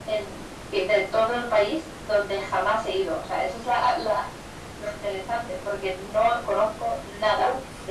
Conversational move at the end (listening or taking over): taking over